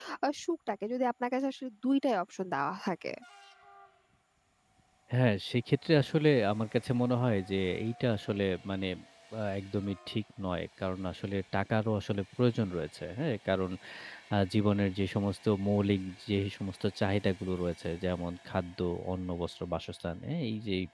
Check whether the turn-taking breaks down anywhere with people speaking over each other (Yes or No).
No